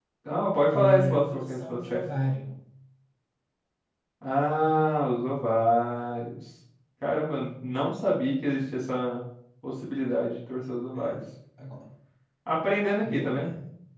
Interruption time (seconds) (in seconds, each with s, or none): 0.7 s